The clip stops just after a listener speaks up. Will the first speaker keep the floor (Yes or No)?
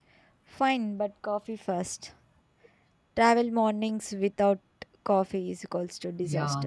No